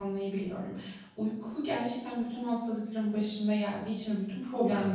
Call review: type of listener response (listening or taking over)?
listening